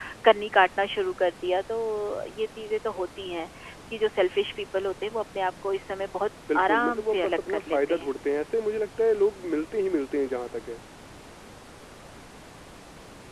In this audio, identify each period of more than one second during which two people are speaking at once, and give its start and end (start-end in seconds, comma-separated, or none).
6.5-8.1